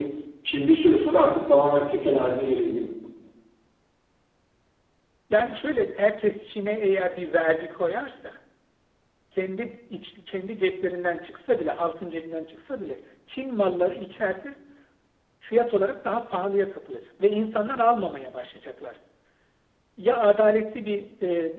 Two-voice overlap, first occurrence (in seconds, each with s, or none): none